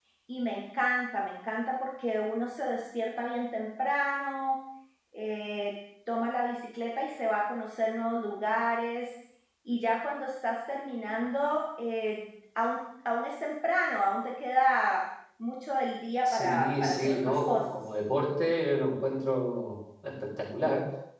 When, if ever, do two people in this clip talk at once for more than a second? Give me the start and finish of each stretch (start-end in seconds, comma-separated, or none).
16.2-17.8